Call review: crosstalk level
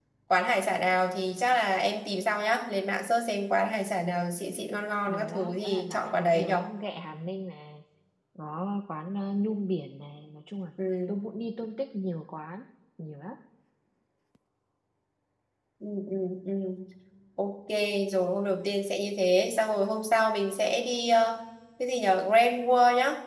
present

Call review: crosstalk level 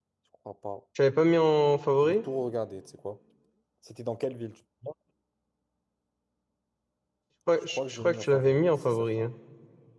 present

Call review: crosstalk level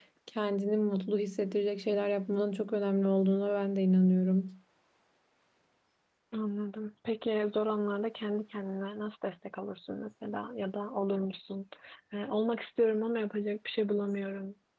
none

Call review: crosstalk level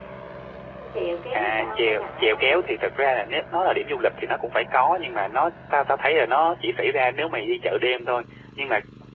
present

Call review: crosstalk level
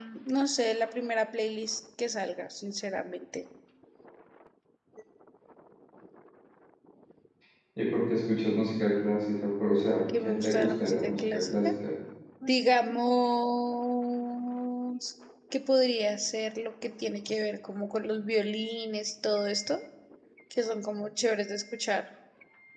present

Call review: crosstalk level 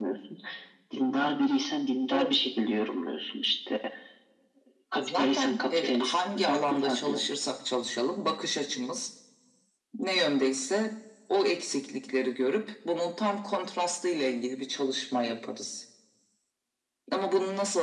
present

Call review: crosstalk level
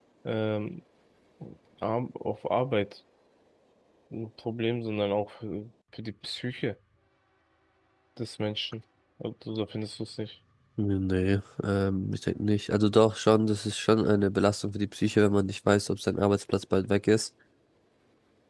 none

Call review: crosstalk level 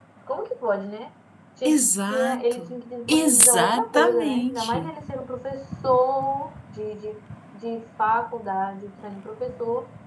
present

